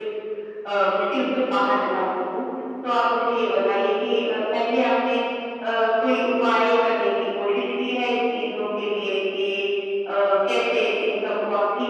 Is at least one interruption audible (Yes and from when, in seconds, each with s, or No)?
No